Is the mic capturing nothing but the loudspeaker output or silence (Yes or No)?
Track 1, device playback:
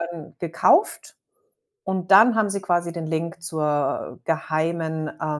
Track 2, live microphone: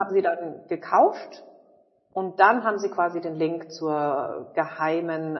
Yes